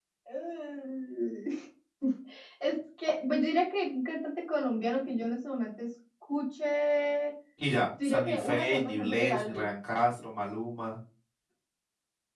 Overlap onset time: 8.0 s

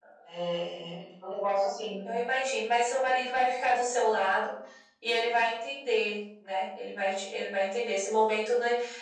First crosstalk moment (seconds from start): none

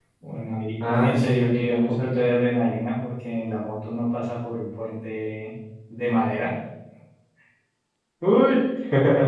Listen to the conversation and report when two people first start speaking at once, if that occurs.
0.9 s

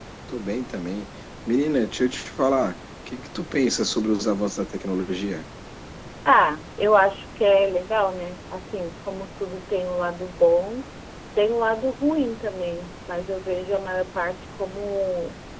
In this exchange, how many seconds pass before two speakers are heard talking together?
none

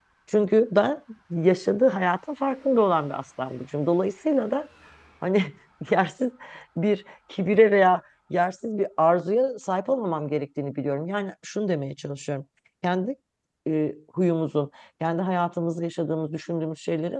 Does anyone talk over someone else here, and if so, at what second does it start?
none

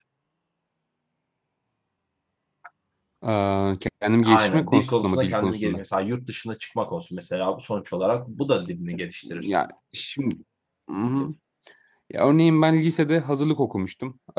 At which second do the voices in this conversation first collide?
4.2 s

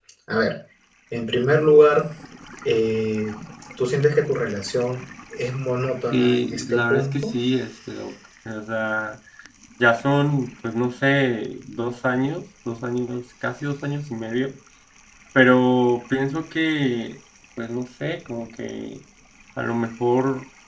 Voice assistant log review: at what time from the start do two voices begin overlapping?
6.1 s

